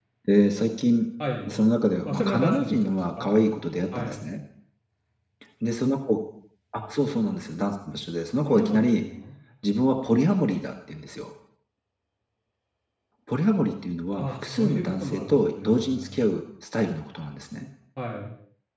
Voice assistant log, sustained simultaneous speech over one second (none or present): present